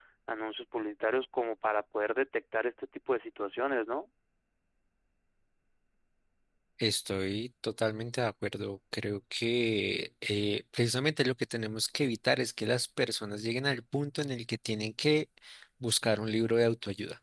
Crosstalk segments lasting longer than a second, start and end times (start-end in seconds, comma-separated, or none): none